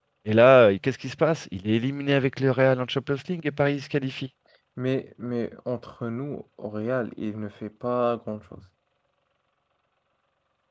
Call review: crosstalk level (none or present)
none